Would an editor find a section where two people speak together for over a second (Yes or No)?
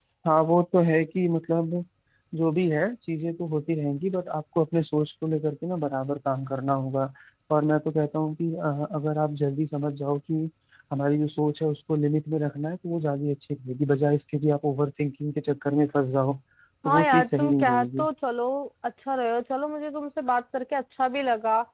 Yes